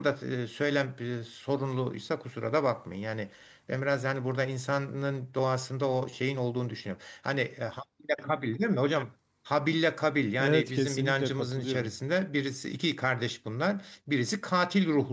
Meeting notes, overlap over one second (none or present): present